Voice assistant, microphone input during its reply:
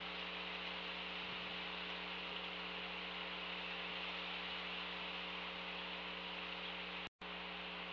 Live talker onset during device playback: none

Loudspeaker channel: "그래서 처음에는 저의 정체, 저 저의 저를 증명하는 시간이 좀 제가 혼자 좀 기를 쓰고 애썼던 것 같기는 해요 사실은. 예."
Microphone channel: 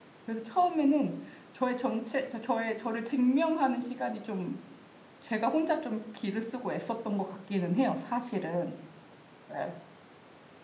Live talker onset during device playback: none

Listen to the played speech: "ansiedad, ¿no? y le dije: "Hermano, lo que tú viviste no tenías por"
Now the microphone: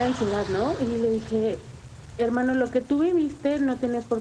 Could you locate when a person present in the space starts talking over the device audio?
none

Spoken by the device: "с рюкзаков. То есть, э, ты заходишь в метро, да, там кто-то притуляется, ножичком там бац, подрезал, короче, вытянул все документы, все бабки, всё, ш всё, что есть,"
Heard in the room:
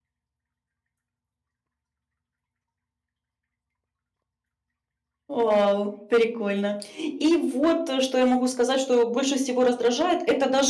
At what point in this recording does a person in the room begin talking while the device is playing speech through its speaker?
5 s

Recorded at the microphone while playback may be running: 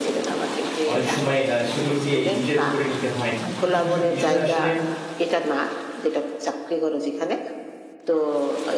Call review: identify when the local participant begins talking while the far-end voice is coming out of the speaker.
1 s

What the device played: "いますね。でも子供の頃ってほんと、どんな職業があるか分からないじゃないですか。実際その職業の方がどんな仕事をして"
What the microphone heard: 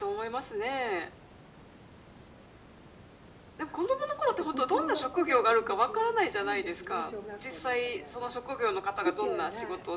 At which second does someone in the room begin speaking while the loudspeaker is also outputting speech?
4 s

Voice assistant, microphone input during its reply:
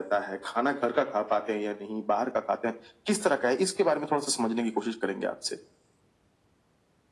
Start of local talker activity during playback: none

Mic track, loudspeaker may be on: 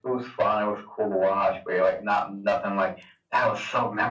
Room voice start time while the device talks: none

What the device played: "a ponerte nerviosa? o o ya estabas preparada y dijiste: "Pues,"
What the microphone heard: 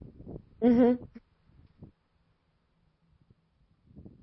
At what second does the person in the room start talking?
1 s

